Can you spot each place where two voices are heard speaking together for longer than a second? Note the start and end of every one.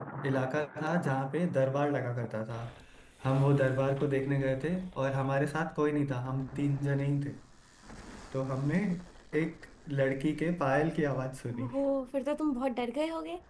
none

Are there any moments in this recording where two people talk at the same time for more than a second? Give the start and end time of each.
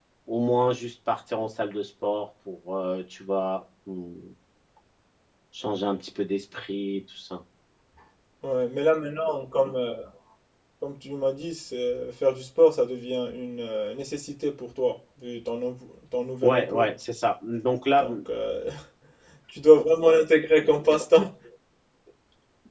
none

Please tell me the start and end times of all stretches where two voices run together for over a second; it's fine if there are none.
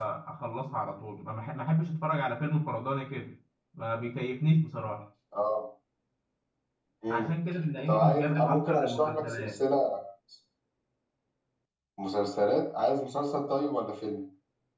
7.9-9.6

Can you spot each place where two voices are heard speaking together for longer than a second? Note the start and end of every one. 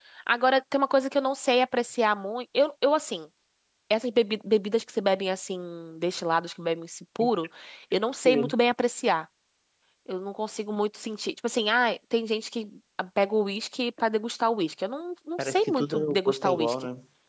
15.4-16.8

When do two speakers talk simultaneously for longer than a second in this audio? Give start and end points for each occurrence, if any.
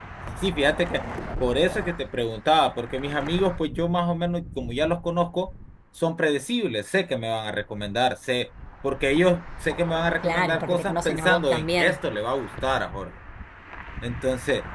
10.2-12.0

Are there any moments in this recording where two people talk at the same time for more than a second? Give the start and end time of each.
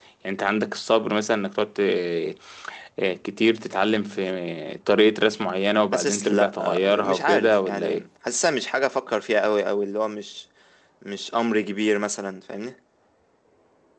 5.9-8.1

